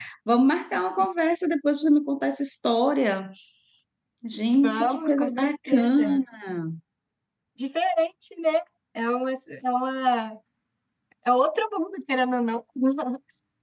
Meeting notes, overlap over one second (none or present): present